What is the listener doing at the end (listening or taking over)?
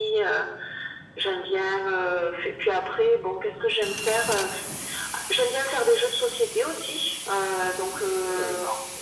listening